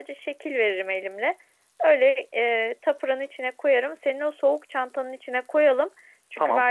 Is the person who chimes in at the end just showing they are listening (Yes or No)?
Yes